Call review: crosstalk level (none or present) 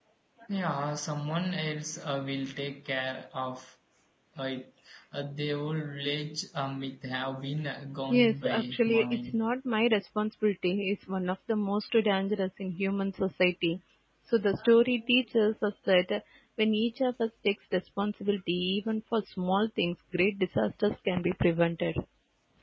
present